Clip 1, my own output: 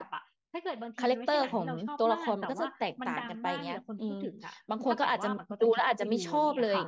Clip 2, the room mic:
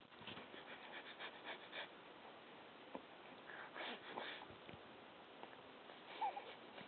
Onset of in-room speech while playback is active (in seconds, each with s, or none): none